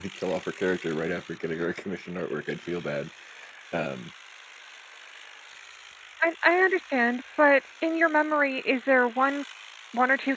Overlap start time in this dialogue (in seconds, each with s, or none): none